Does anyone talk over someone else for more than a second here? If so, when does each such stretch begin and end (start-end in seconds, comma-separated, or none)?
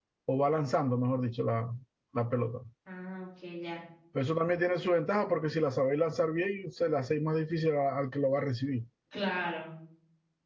none